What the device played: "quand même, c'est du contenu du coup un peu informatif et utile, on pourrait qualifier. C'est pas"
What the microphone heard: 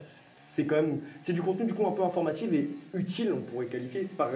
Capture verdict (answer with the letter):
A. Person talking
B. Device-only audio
B